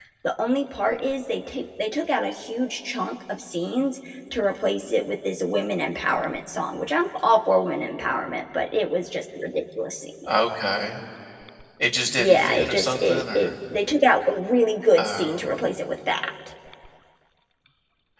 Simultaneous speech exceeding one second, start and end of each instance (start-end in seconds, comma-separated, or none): 12.2-13.6